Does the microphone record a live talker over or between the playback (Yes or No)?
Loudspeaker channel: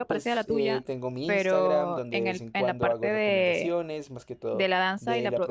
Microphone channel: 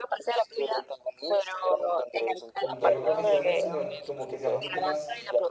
Yes